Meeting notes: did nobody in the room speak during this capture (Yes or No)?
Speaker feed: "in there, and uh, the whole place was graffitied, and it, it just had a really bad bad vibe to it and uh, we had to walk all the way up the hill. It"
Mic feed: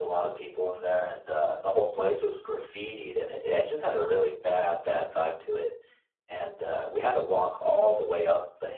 Yes